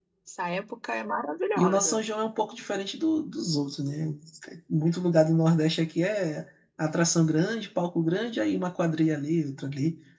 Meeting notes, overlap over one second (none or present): none